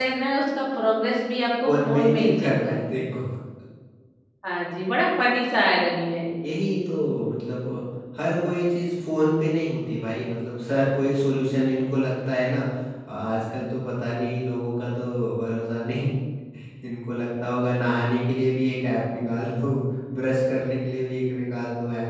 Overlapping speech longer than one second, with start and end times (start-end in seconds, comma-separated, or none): 1.6-3.0